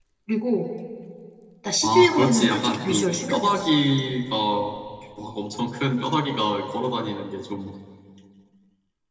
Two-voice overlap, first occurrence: 1.8 s

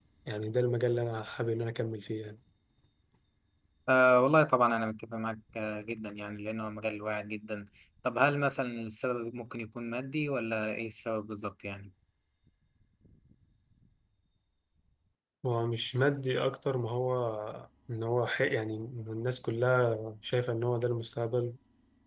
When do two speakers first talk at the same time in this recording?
none

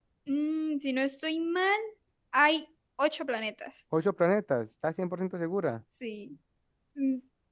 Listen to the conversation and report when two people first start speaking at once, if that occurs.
none

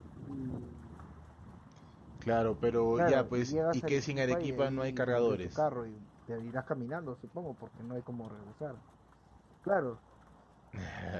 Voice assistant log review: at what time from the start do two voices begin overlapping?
3.0 s

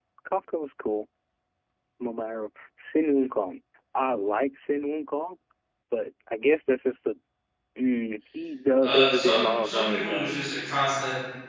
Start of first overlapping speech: 8.8 s

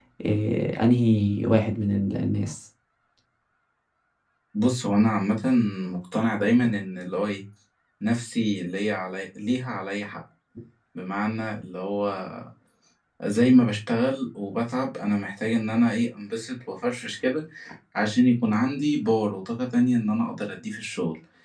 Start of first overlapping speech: none

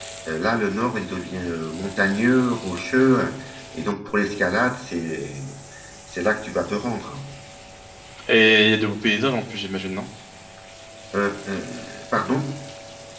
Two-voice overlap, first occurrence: none

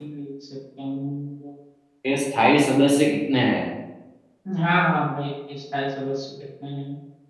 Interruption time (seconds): none

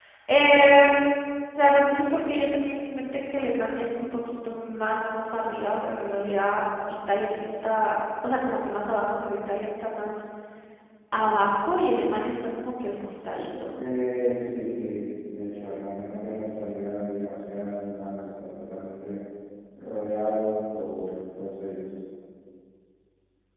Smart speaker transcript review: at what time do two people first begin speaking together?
none

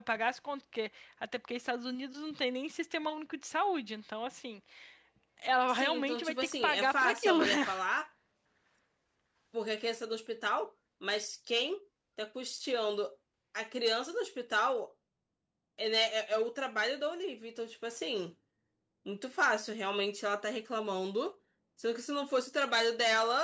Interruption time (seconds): 5.7 s

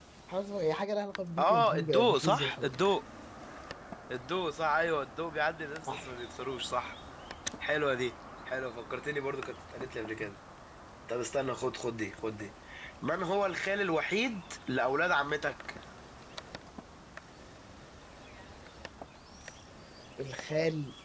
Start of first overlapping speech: 1.4 s

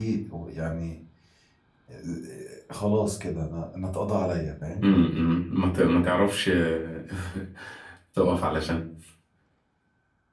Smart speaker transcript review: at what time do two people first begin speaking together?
none

